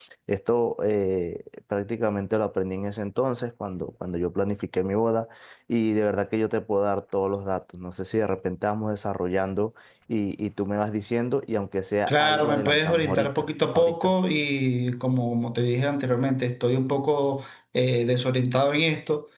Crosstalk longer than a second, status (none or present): present